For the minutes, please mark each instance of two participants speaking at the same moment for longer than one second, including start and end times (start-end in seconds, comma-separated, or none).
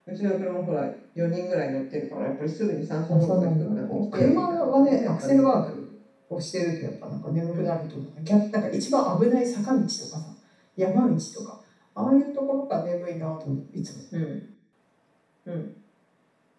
3.1-5.8